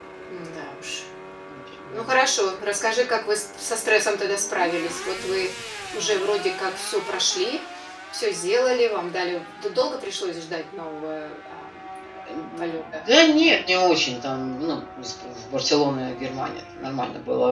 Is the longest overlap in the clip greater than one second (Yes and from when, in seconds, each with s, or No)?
No